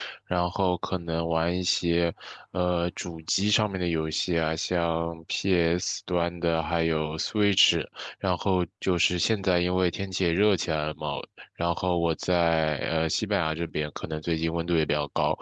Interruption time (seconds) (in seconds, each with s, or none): none